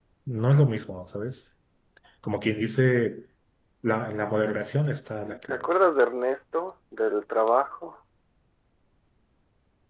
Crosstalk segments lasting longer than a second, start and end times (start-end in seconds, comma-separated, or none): none